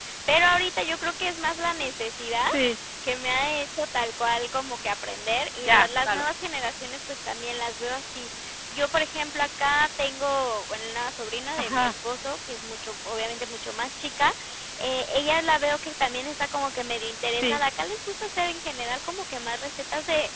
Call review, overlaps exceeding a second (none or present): none